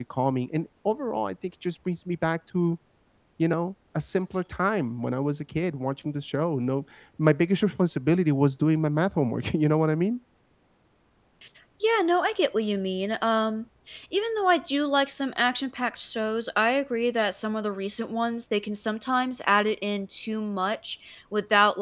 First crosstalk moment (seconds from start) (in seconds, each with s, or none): none